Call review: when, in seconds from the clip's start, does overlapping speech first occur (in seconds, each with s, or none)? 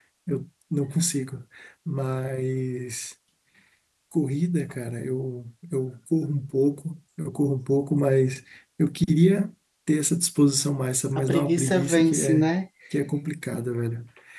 11.2 s